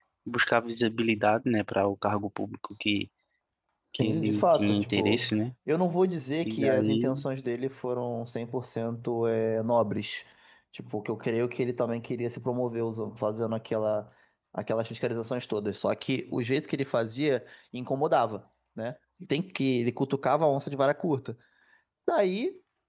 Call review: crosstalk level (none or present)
present